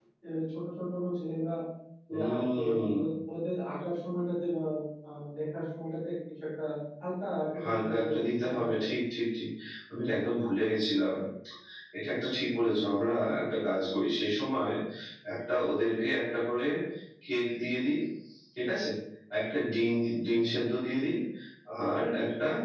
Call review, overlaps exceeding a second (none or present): present